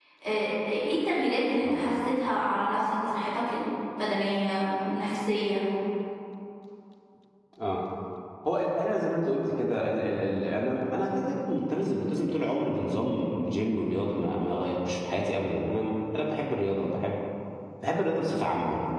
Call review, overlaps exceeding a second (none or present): none